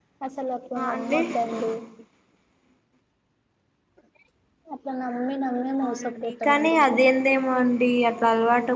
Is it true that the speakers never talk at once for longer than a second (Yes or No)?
No